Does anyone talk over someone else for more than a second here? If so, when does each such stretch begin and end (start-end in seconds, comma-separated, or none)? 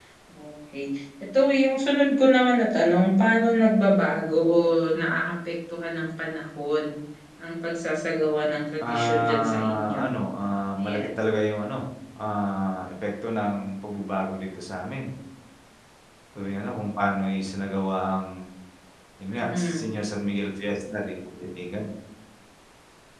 8.8-10.1